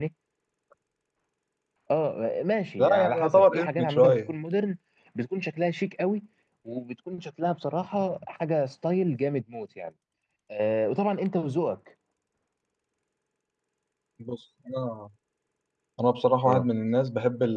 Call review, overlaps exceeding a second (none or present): present